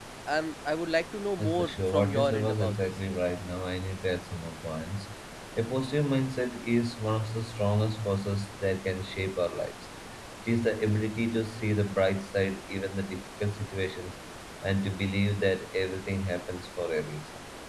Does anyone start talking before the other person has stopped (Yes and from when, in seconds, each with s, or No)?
Yes, from 1.4 s